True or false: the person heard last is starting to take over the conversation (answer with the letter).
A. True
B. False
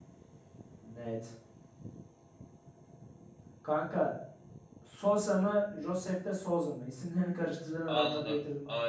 A